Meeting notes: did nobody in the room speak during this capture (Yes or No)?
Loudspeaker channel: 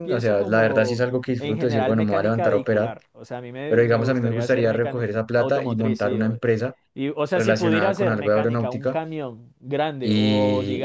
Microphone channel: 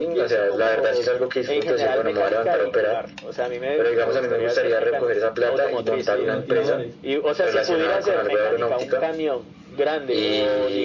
No